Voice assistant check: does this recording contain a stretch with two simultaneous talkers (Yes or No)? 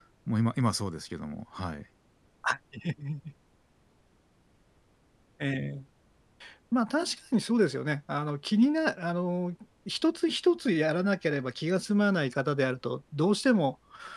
No